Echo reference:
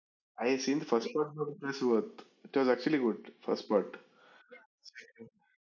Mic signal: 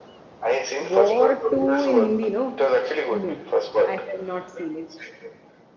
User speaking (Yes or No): Yes